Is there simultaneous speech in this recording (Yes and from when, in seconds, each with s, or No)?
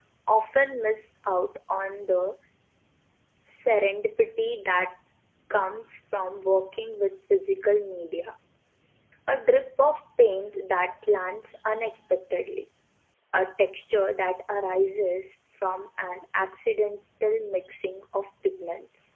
No